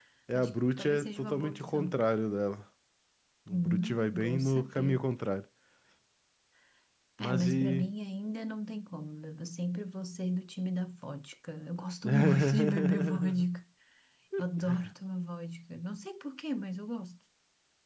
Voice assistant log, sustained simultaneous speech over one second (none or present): present